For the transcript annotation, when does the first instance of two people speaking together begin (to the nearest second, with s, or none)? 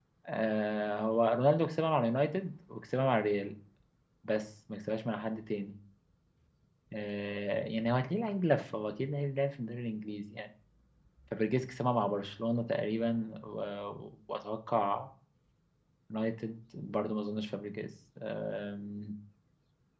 none